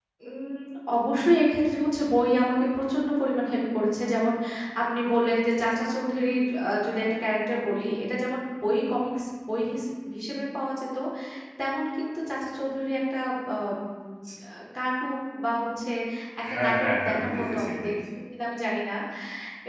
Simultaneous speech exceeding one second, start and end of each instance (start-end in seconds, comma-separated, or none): 16.5-17.9